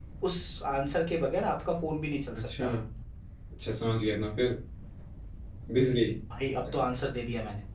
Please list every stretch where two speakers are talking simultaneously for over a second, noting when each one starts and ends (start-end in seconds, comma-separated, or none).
none